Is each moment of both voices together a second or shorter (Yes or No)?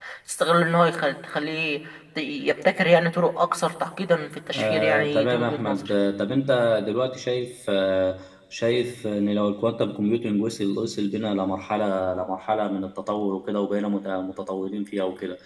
No